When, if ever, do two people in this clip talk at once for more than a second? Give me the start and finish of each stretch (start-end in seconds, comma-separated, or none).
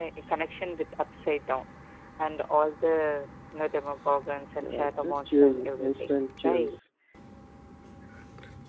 4.6-6.8